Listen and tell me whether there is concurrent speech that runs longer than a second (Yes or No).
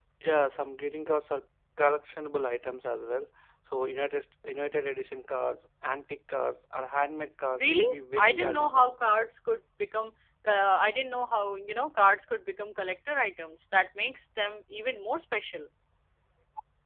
Yes